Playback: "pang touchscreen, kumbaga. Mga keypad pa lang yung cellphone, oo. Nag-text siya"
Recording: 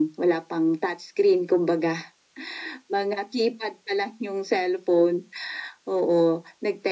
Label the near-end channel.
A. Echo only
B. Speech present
A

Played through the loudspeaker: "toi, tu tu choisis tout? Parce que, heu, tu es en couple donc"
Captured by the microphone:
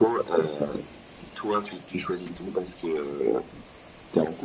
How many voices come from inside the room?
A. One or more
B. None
B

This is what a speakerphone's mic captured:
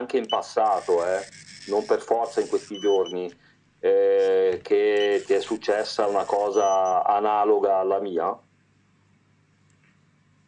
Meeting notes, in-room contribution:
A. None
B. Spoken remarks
A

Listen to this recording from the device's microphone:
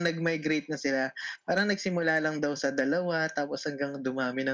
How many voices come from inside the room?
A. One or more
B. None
B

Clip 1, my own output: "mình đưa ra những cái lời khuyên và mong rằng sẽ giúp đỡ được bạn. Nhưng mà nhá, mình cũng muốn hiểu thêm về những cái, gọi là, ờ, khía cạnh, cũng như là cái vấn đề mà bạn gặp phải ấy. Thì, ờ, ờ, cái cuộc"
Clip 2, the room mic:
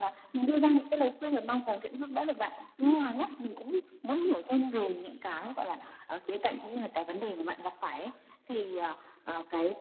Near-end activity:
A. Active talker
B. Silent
B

